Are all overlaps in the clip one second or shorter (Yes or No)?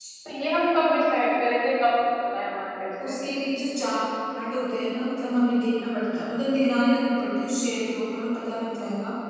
Yes